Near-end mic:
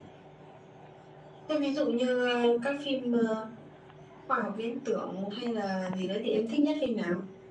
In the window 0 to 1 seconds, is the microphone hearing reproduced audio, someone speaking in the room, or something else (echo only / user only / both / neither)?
neither